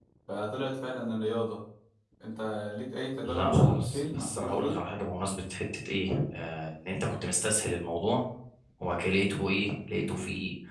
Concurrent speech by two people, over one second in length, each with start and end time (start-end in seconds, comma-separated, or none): 3.2-4.8